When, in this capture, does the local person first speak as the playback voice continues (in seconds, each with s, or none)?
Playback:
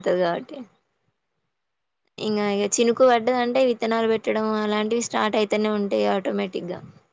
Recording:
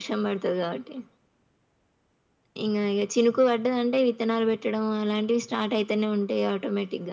none